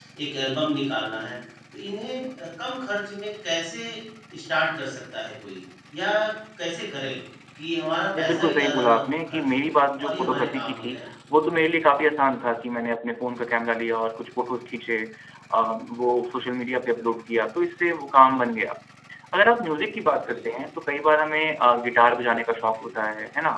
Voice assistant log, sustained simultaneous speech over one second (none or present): present